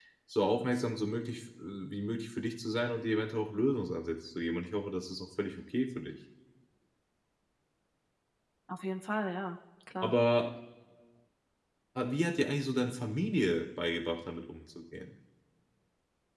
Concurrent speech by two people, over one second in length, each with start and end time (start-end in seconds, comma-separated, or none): none